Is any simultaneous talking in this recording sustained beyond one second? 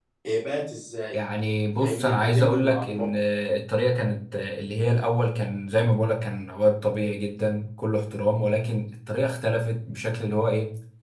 Yes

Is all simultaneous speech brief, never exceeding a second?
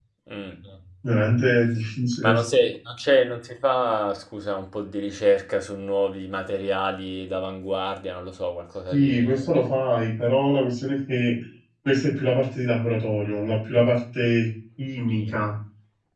Yes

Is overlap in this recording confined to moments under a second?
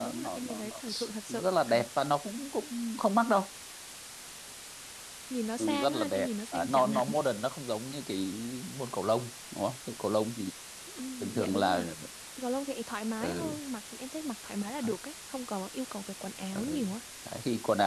No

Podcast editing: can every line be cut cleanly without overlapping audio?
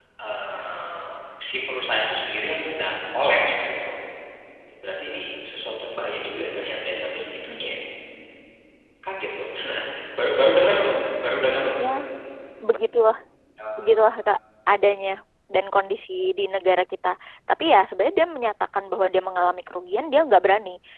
Yes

